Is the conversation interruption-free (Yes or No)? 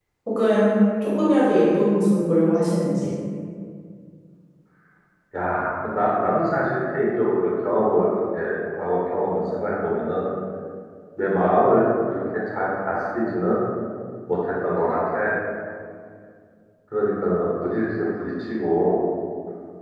Yes